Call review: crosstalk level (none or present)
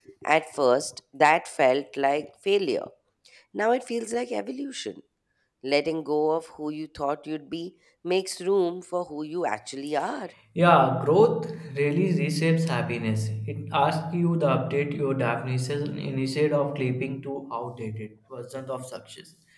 none